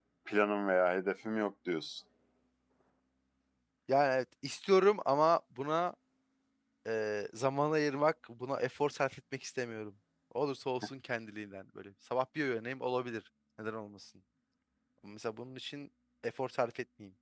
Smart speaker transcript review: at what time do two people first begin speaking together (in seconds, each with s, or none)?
none